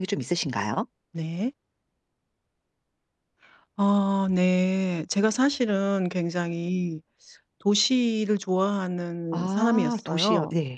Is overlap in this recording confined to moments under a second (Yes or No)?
No